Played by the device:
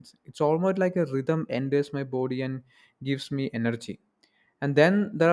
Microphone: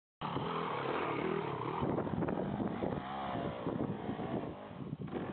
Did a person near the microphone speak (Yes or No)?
No